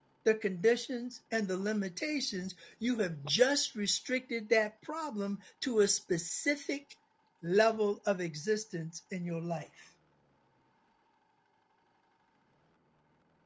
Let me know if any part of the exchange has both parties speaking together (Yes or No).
No